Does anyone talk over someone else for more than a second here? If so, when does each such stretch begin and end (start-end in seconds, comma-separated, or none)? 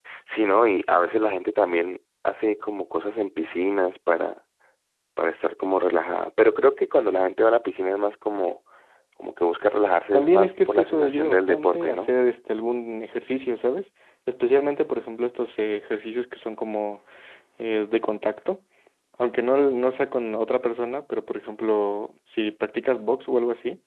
10.1-12.1